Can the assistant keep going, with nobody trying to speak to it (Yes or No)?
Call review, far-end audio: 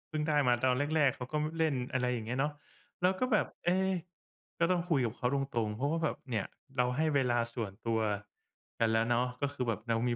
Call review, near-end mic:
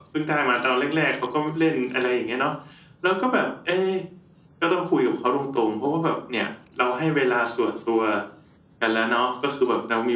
Yes